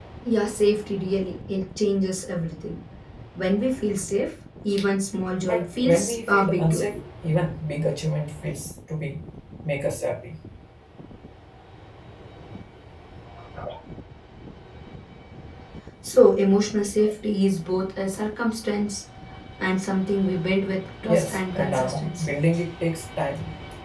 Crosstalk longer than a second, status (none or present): present